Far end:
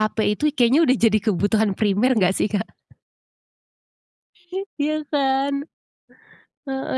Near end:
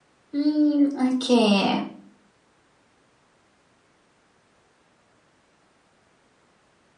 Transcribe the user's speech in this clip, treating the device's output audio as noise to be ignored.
Mmm, oke.

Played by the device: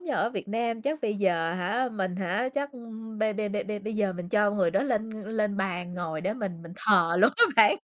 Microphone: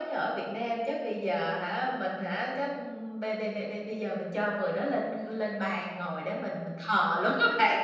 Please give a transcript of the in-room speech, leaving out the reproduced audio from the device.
none

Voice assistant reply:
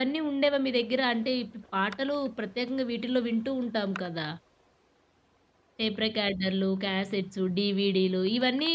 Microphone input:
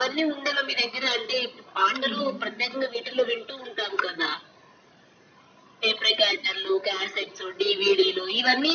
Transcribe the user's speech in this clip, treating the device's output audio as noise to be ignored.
హ్మ్.

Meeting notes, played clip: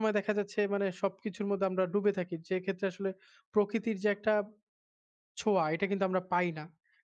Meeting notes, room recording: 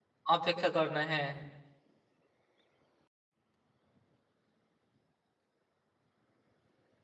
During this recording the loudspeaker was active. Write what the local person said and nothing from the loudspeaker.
অপেক্ষা করে না, হ্যাঁ।

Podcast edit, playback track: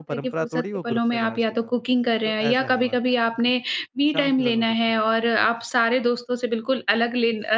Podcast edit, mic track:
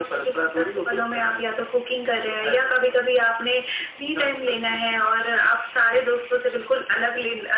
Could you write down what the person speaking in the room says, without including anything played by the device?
none

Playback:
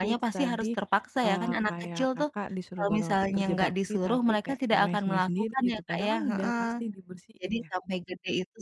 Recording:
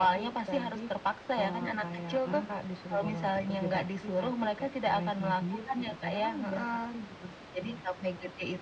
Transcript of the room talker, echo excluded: heeh,

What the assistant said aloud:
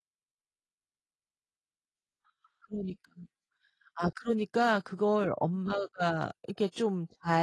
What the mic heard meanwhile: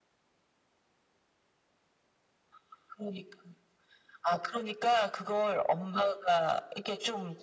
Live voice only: none

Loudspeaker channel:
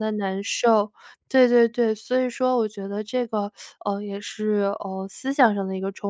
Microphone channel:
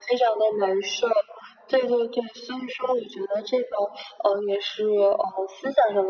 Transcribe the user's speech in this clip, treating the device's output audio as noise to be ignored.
none

